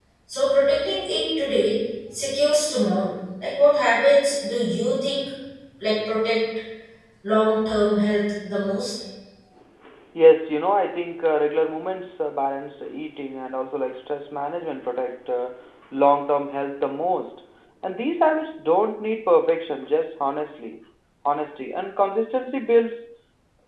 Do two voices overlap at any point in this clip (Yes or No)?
No